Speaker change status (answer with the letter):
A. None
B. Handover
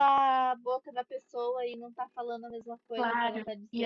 B